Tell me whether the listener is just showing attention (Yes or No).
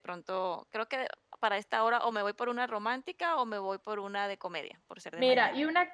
No